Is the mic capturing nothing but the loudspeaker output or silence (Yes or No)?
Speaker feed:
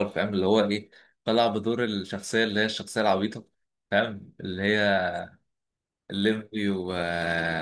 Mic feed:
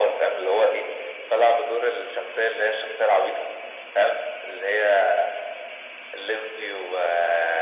Yes